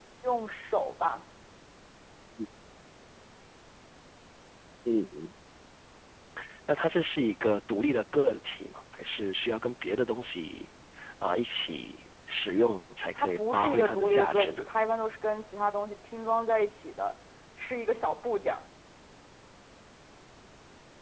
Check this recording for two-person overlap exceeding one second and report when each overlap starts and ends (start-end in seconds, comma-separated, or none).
13.2-14.6